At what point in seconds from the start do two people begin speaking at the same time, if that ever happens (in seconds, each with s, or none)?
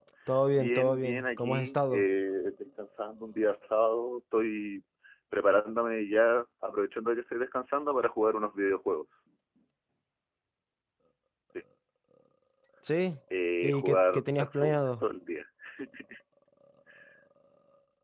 0.5 s